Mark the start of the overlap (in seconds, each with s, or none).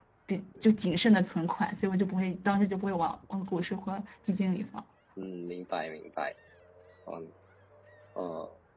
none